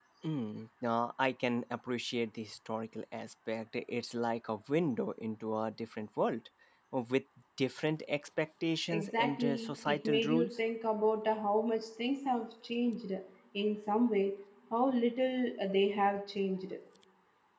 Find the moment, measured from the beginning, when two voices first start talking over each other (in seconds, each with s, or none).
8.9 s